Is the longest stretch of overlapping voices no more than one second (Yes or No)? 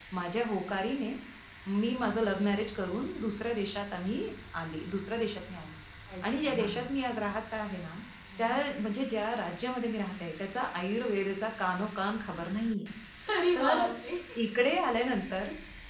Yes